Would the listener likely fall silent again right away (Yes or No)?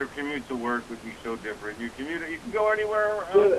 No